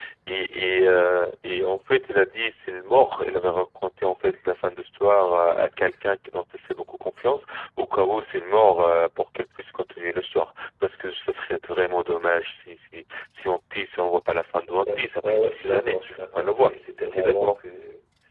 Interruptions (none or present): present